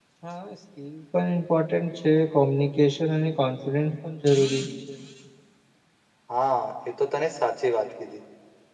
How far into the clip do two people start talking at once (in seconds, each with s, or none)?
none